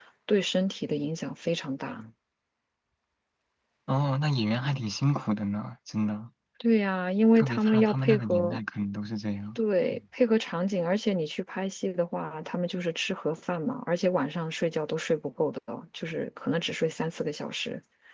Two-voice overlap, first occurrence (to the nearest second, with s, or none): 7 s